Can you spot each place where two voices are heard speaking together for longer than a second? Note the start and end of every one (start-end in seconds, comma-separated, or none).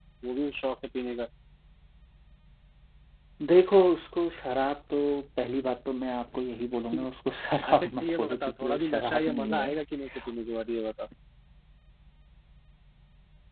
7.7-9.7